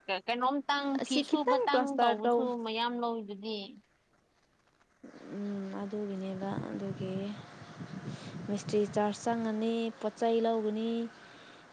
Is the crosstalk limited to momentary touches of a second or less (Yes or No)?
No